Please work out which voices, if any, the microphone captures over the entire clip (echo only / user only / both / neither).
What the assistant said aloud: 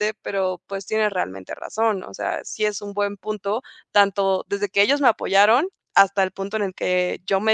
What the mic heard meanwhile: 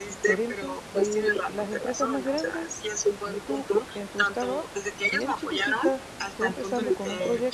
both